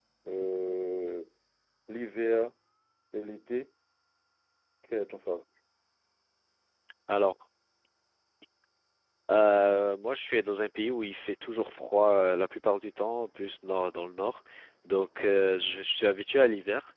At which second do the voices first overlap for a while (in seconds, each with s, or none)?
none